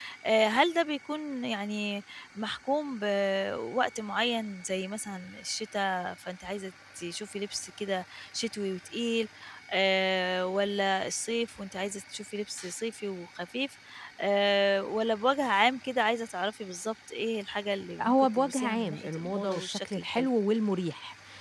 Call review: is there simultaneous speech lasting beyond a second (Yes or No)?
Yes